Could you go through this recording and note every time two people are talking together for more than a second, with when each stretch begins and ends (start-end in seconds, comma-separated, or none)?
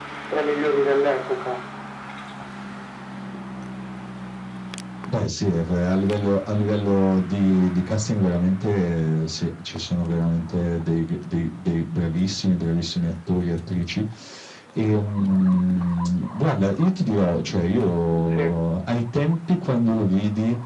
none